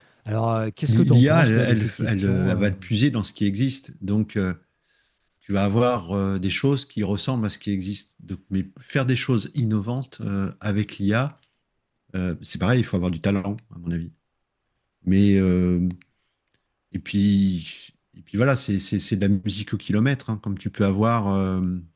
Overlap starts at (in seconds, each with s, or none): 0.9 s